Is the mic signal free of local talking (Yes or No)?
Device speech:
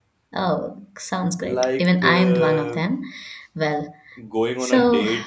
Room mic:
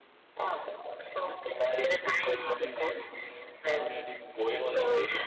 No